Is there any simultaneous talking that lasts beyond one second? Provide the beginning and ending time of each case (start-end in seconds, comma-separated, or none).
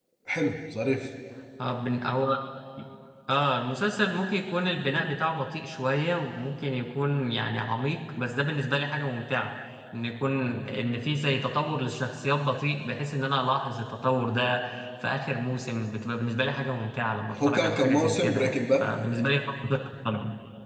17.3-18.8